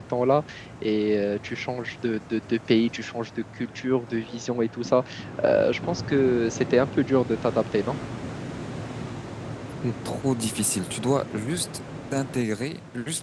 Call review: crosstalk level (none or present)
none